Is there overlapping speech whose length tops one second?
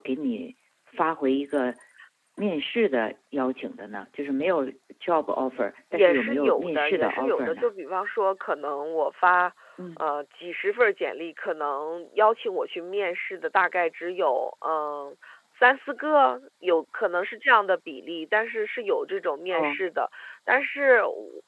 Yes, from 5.9 s

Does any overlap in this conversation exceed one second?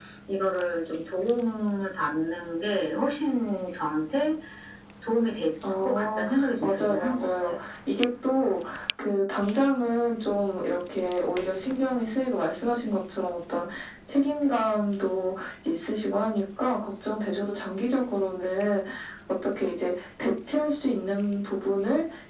Yes, from 5.8 s

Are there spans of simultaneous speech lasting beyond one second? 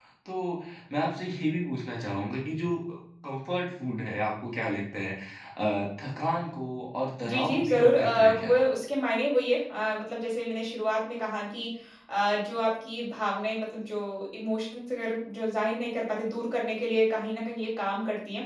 Yes, from 7.2 s

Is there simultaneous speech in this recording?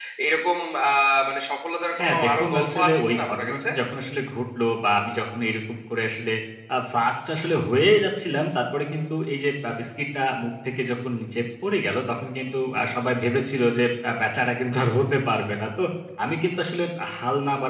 Yes, from 2.0 s

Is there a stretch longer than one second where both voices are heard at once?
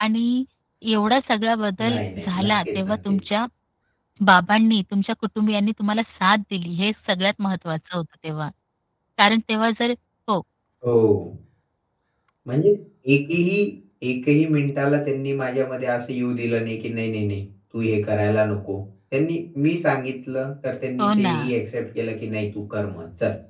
Yes, from 1.9 s

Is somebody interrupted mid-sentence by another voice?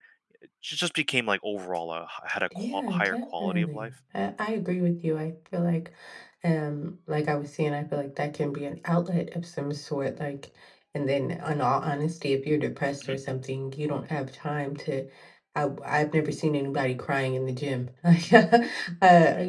Yes, from 2.5 s

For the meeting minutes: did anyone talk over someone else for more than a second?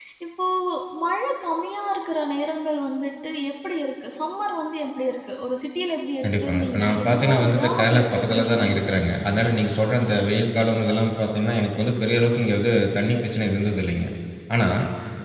Yes, from 6.2 s

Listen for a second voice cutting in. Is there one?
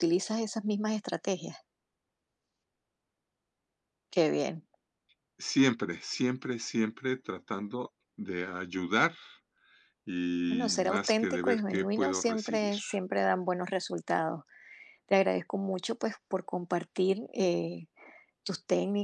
Yes, from 10.5 s

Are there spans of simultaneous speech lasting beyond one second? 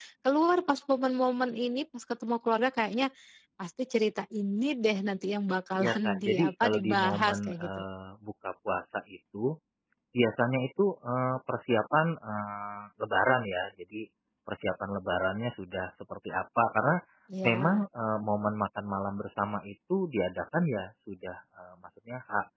Yes, from 5.8 s

